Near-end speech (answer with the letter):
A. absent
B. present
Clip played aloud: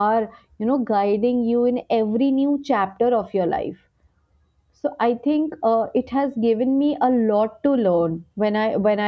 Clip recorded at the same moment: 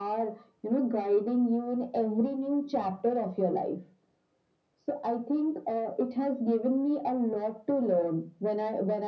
A